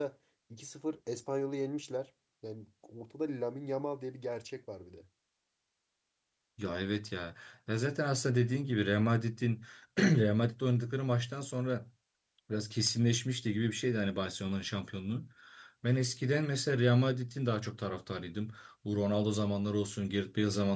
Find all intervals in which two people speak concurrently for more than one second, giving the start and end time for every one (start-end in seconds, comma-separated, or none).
none